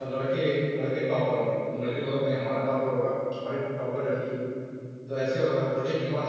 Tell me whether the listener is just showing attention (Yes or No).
Yes